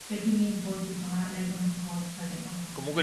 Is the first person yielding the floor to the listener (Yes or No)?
Yes